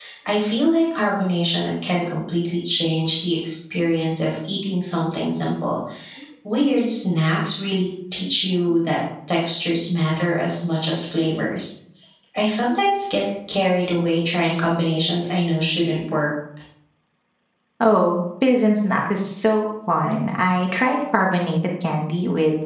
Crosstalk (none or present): none